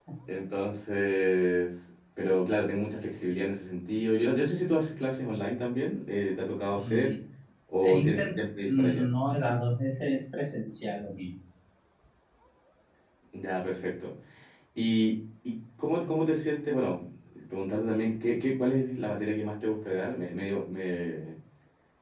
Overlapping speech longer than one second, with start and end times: 7.8-9.0

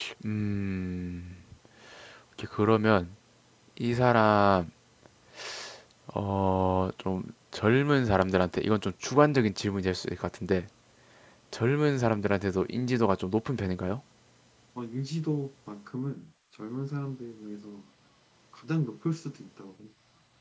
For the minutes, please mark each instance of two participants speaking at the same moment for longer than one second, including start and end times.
none

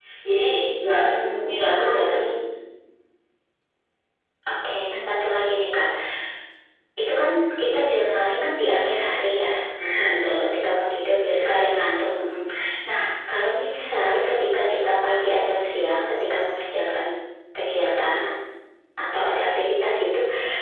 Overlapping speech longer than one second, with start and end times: 0.9-2.2

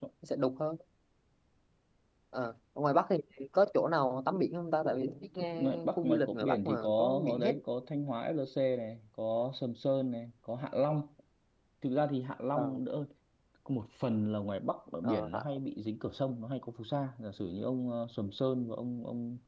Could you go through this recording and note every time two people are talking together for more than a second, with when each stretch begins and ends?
5.6-7.5

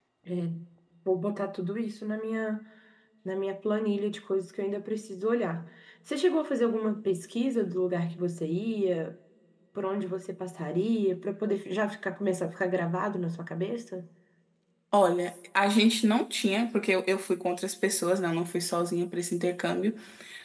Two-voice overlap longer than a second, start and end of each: none

